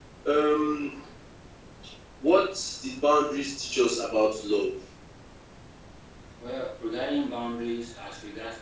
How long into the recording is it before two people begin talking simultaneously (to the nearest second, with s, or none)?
none